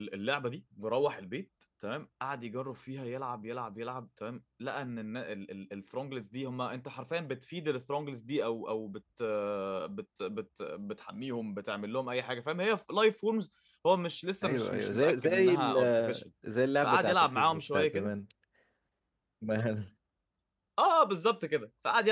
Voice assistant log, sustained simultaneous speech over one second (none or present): present